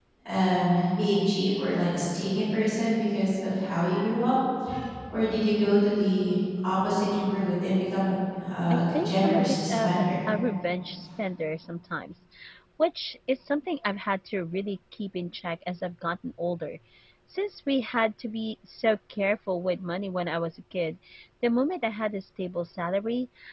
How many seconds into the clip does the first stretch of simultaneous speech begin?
8.7 s

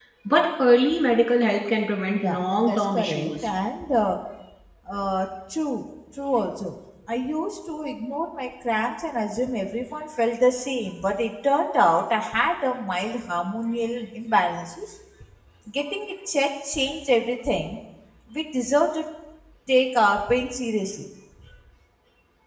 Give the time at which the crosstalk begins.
2.1 s

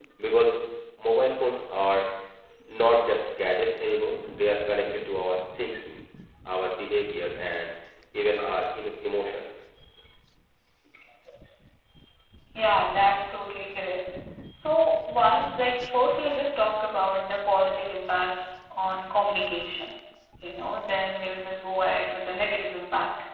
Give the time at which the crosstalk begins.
none

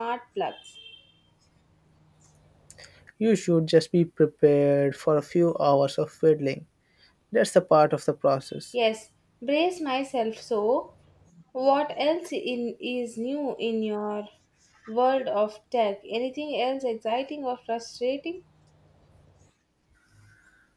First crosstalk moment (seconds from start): none

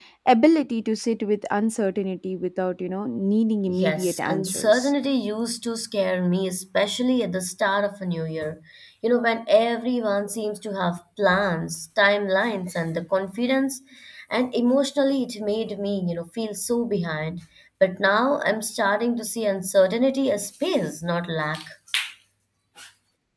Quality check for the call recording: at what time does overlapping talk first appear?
3.7 s

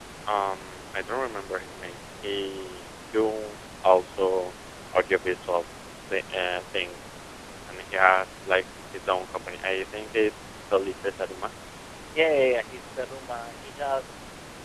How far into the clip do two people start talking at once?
none

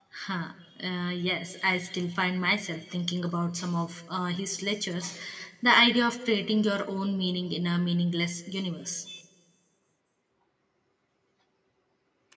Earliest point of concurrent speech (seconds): none

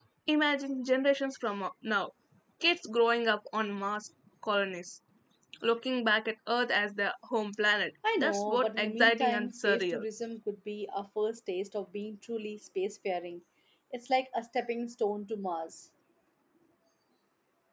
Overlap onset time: 8.0 s

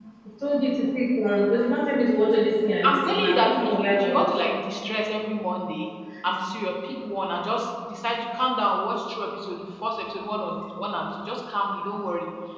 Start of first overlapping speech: 2.8 s

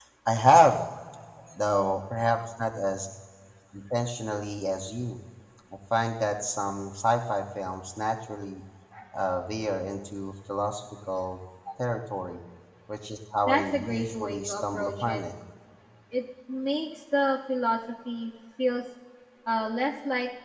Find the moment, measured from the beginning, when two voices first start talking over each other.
13.4 s

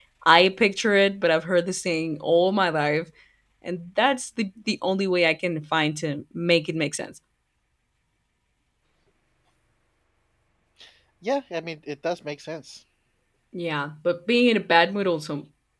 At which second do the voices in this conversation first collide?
none

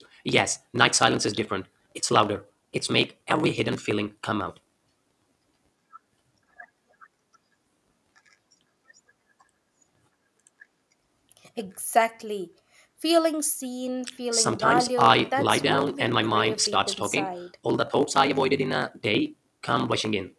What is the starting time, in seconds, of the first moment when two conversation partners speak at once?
14.3 s

